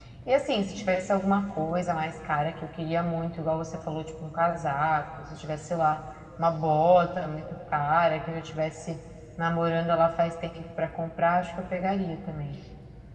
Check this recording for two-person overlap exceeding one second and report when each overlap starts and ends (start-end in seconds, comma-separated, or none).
none